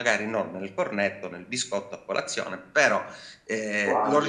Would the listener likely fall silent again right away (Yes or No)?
Yes